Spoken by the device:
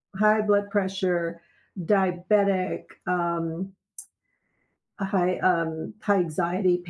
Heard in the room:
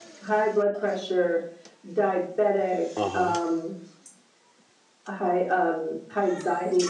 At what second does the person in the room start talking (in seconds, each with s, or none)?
3.0 s